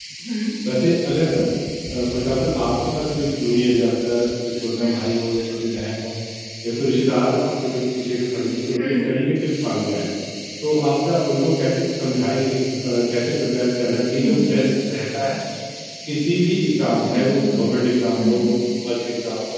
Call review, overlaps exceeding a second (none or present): none